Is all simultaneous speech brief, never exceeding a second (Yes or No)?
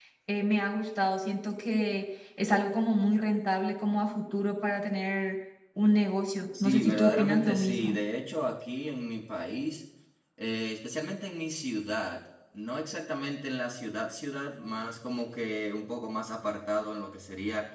No